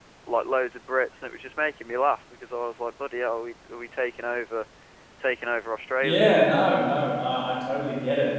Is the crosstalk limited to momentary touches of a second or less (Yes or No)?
Yes